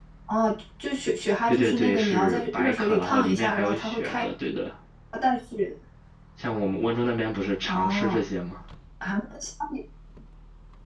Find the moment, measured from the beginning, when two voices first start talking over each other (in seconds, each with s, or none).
1.5 s